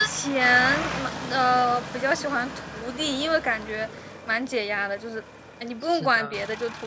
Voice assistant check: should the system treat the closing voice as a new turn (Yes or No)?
No